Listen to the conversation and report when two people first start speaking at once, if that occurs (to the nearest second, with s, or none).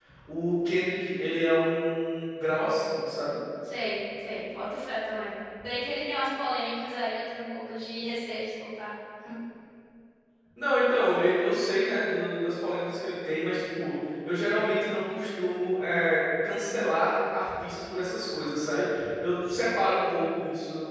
none